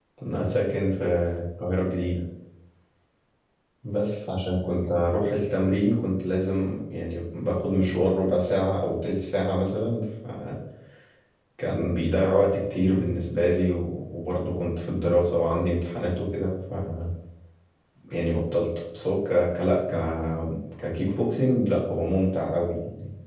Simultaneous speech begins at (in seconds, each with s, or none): none